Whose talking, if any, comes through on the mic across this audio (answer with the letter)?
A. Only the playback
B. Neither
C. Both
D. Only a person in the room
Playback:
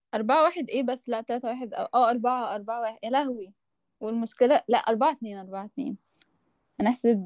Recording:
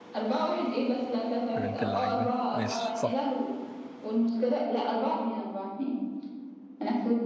C